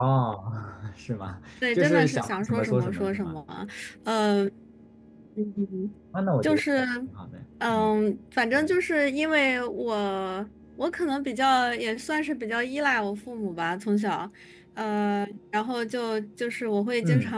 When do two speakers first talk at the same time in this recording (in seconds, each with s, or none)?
1.7 s